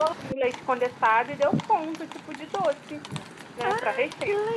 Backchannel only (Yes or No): No